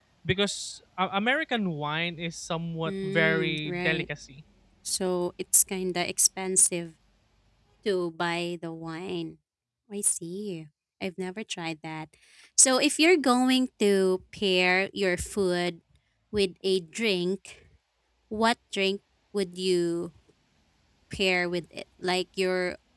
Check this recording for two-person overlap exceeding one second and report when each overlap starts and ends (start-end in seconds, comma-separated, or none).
2.9-4.1